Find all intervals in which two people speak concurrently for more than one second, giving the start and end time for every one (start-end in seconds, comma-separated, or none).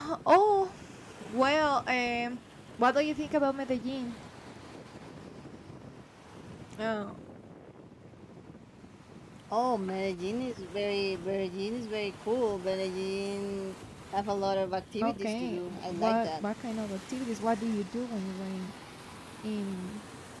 15.0-16.4